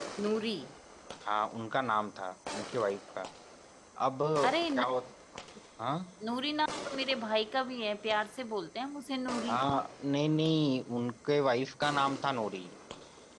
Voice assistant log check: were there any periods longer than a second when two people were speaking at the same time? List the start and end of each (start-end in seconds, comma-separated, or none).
none